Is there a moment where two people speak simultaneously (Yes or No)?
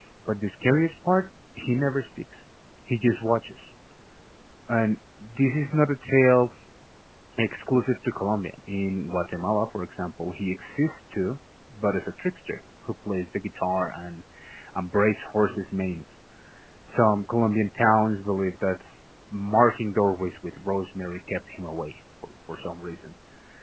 No